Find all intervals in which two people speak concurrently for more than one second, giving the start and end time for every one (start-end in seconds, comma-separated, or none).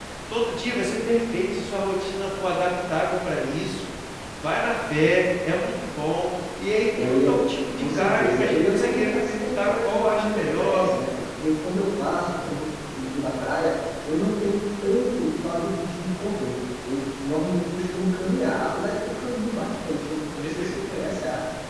7.8-10.9